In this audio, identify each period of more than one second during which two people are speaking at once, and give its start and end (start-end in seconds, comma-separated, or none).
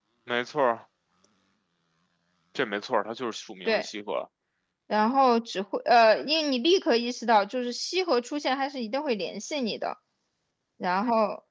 none